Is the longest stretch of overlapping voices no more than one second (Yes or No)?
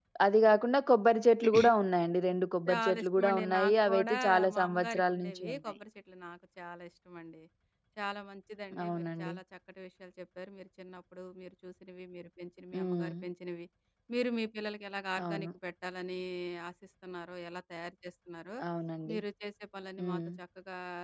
No